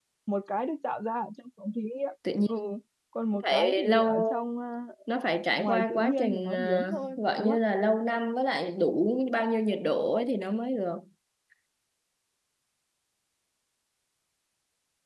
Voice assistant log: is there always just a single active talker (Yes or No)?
No